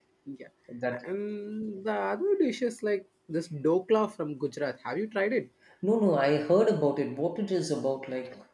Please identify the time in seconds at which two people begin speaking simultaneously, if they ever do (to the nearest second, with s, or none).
none